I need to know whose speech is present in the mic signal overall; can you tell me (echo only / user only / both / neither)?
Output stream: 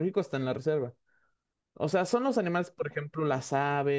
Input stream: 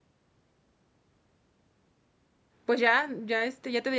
user only